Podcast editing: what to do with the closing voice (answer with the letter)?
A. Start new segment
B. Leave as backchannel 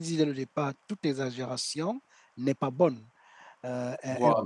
B